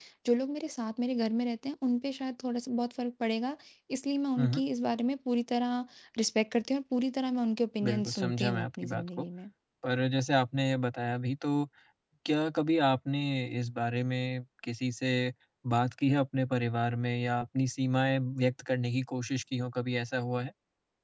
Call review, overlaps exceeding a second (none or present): present